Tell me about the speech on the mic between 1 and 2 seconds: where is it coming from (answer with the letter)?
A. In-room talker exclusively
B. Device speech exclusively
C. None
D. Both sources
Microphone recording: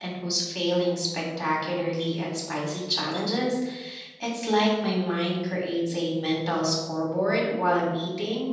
A